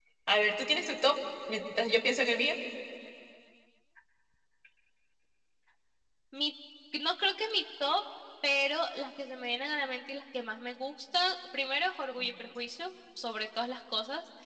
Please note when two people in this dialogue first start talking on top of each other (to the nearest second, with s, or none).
none